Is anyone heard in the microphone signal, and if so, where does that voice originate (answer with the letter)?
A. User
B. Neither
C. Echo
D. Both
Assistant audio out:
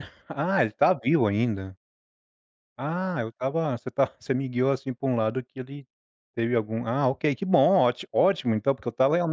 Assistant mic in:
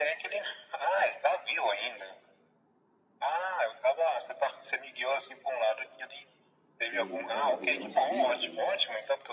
D